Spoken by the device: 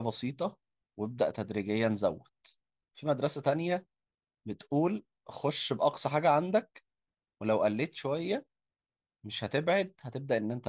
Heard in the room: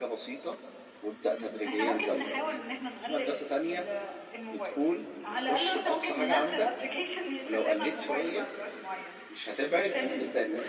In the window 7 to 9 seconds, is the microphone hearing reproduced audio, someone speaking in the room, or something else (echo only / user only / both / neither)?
both